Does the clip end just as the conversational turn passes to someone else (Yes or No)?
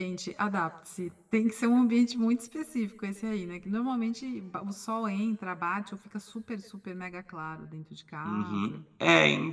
Yes